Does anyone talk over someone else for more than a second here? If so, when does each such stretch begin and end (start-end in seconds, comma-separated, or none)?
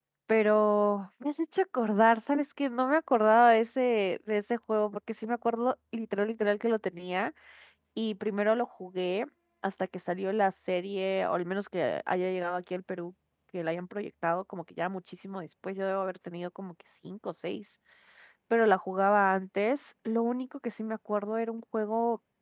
none